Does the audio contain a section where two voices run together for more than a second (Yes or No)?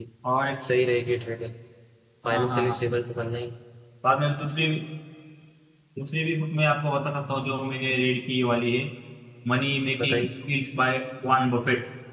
No